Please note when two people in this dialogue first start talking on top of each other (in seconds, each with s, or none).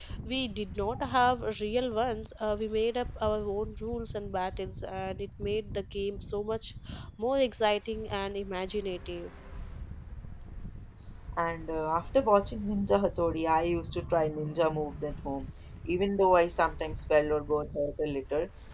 none